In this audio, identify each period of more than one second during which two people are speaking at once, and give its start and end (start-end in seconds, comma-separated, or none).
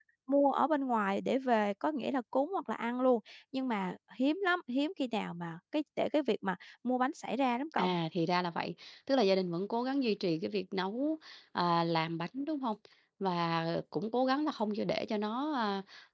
none